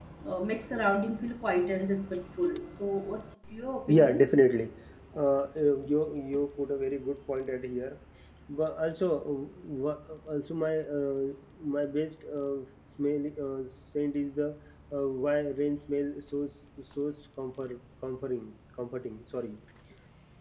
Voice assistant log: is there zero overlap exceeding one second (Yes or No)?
Yes